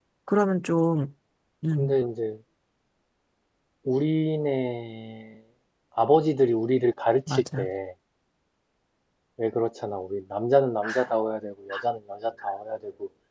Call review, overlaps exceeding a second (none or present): none